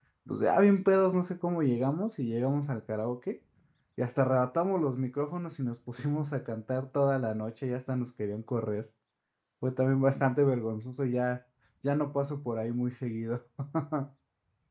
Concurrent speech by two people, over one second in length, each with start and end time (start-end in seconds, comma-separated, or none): none